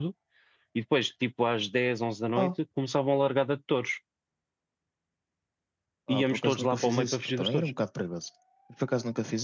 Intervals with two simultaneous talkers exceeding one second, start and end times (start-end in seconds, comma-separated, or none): 6.1-7.7